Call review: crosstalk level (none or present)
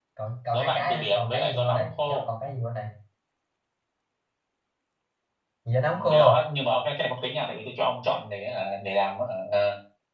present